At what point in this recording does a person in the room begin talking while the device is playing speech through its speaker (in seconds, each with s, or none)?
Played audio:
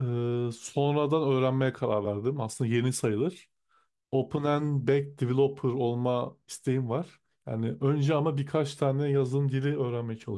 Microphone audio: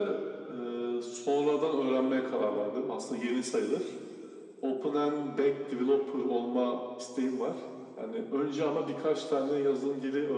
none